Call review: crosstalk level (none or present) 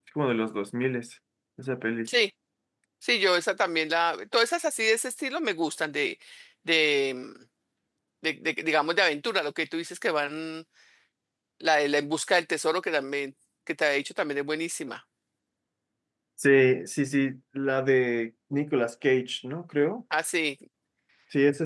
none